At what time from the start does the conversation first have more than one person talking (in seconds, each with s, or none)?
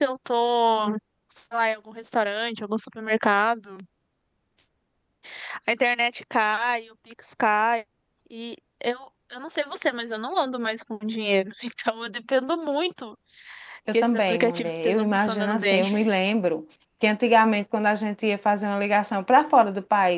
13.9 s